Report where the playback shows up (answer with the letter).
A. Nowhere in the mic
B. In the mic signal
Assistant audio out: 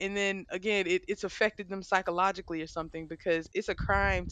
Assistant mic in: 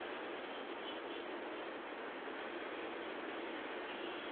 A